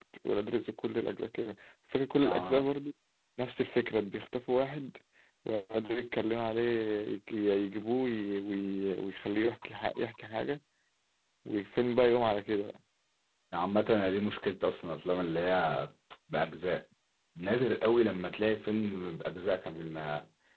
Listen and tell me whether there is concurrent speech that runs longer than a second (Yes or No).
No